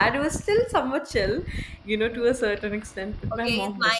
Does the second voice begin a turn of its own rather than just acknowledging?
Yes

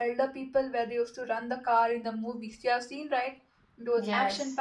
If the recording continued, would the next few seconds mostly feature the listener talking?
No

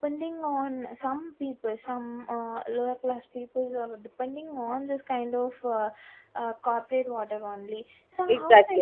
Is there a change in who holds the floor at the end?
Yes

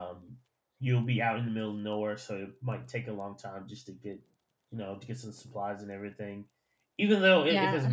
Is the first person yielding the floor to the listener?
No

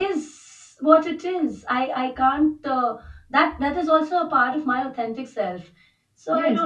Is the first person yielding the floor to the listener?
Yes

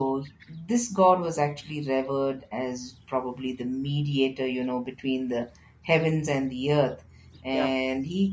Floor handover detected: No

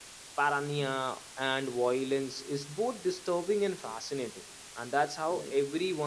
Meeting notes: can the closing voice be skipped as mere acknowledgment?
No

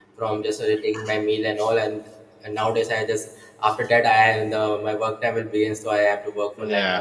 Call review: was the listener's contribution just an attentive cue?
No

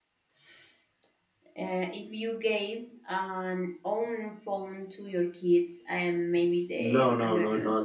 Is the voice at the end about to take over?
Yes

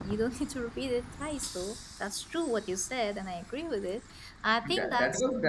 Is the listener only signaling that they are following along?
No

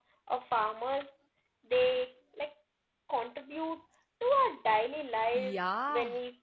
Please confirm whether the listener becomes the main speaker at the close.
Yes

